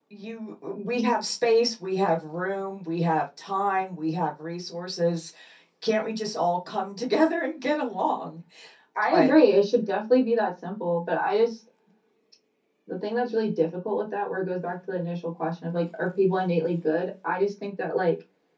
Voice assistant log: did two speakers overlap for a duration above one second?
No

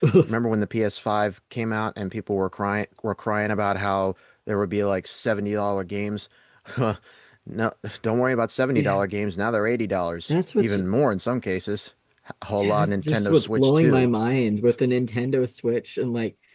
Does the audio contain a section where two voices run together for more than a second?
Yes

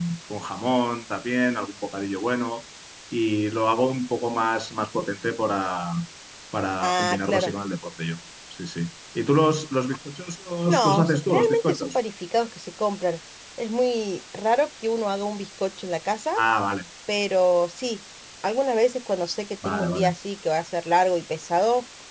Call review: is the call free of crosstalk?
No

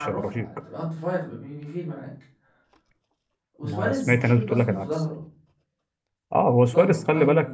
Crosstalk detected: Yes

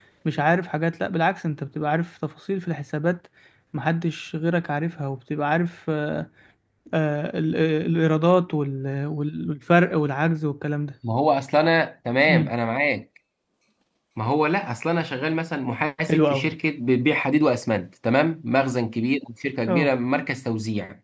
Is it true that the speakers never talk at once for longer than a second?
Yes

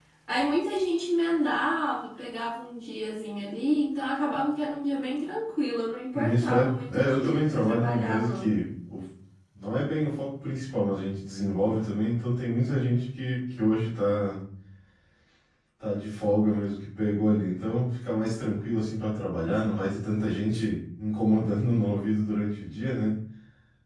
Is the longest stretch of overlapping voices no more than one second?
No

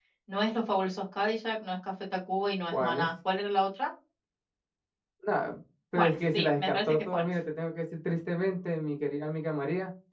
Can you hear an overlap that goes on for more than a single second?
Yes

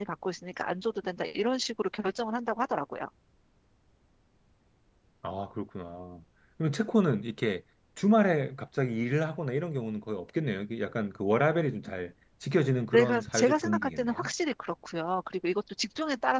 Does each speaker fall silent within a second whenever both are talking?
No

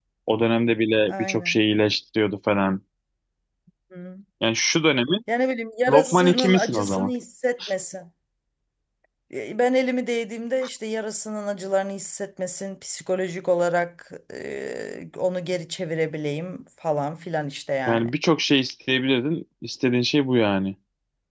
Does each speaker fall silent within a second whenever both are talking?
No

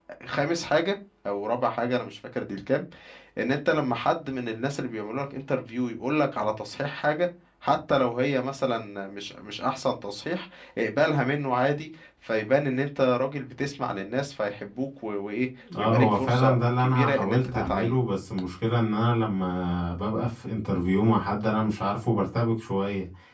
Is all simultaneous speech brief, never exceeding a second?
No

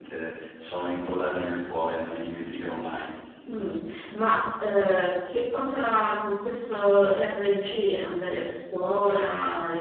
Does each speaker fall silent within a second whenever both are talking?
Yes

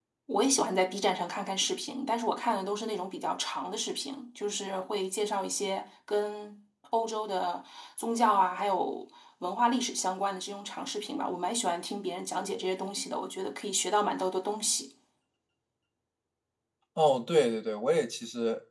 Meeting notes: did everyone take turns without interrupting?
Yes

